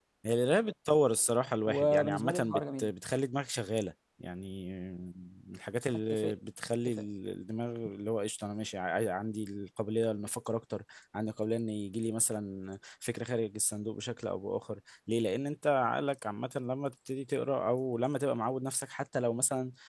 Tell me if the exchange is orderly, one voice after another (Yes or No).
No